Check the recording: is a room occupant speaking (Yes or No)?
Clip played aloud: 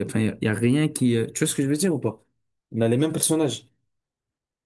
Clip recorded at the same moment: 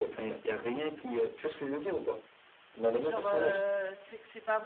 Yes